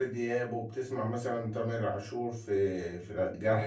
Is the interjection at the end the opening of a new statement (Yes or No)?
Yes